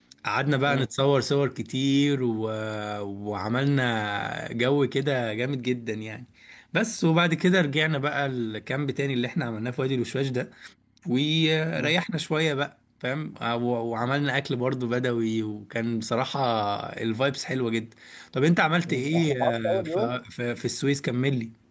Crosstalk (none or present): present